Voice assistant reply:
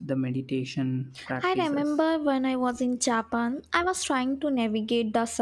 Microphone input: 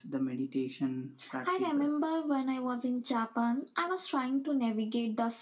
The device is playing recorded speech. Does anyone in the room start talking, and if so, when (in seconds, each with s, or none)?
none